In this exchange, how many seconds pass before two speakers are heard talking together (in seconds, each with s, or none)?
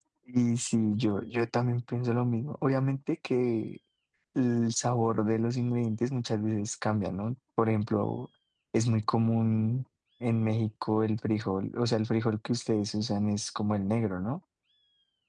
none